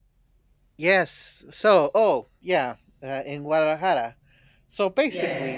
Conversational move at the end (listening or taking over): listening